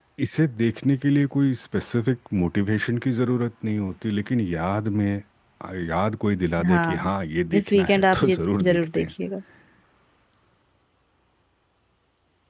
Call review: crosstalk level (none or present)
present